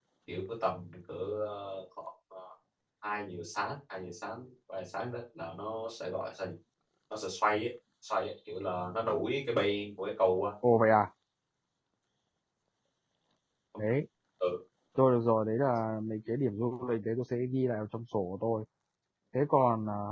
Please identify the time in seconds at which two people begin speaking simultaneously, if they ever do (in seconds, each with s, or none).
none